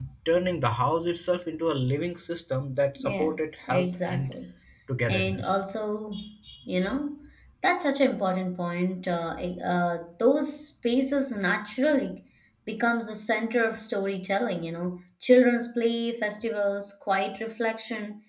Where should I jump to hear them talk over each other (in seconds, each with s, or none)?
3.0 s